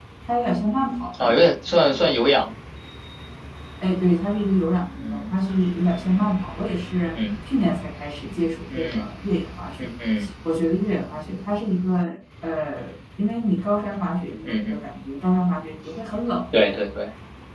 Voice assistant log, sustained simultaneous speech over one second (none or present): none